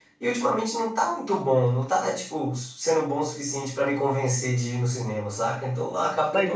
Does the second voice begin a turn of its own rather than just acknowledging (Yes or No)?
Yes